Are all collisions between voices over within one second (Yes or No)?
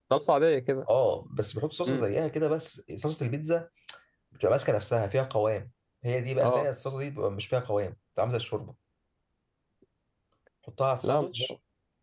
Yes